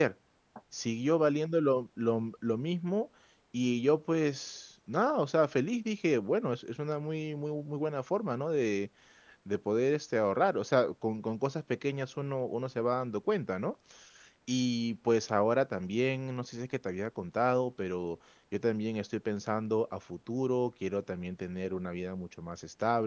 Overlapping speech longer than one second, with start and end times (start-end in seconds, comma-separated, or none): none